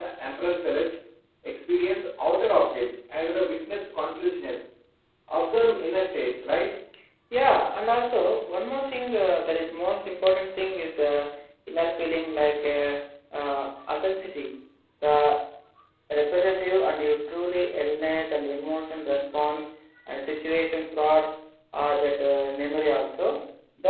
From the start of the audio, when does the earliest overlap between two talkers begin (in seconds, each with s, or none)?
none